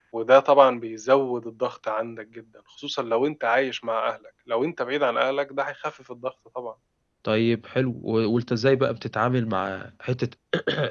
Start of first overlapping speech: none

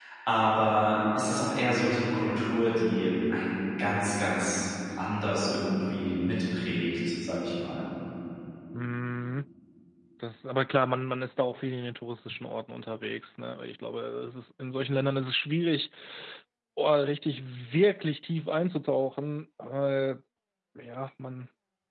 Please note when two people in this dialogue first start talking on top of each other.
none

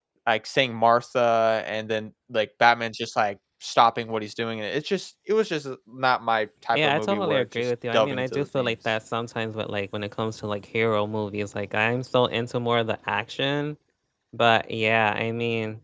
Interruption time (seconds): 6.7 s

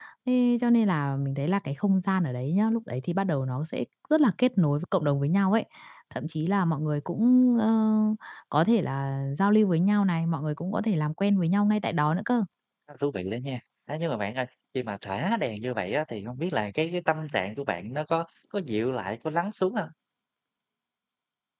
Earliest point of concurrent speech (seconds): none

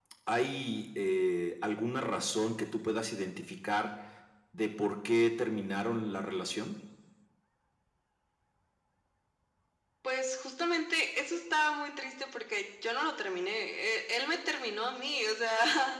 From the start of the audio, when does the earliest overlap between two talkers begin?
none

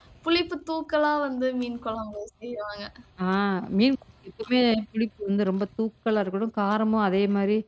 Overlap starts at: none

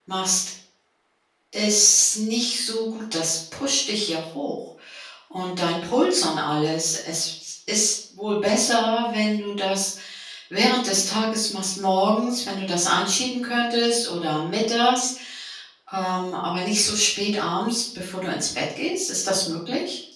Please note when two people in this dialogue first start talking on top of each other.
none

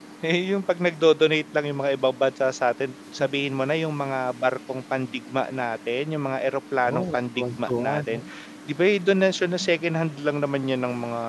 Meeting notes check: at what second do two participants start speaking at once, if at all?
6.8 s

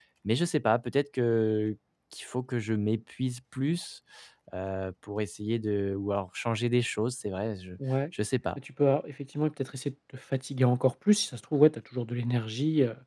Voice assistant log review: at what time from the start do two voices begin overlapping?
none

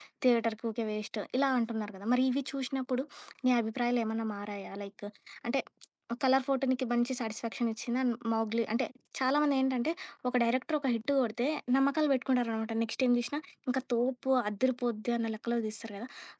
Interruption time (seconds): none

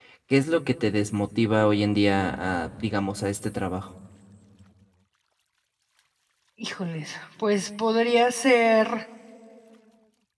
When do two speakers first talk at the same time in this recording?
none

